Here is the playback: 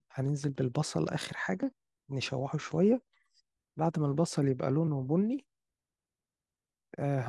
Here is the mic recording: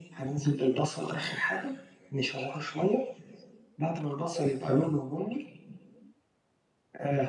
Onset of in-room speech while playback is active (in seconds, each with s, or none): none